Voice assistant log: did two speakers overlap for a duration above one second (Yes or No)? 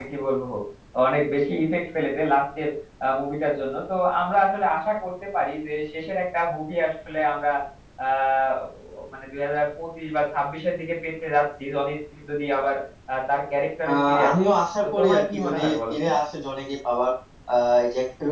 Yes